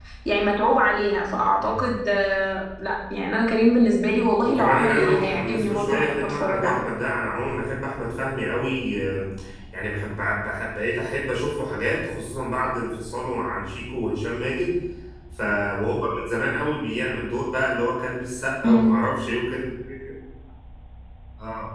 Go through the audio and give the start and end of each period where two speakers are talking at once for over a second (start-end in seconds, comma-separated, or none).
4.4-6.6